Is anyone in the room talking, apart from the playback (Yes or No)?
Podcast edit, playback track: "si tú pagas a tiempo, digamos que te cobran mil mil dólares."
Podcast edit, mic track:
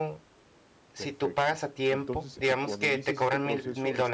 Yes